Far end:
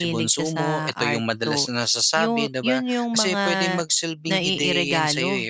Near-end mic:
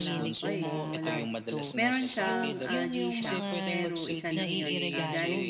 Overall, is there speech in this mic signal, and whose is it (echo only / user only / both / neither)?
both